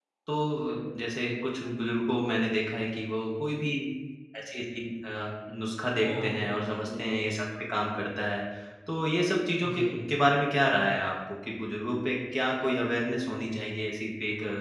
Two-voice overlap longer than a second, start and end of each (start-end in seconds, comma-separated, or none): 6.0-7.4